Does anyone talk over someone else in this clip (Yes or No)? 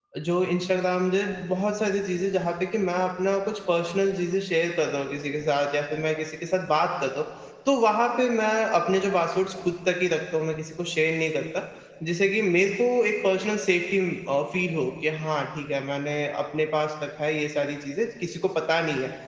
No